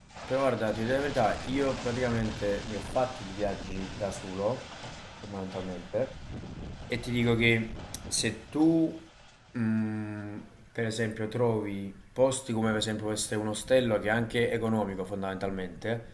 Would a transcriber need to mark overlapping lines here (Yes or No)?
No